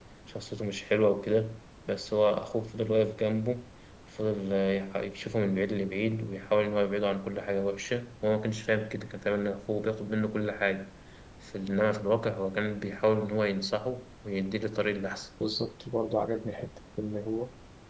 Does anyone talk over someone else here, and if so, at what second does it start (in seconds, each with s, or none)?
none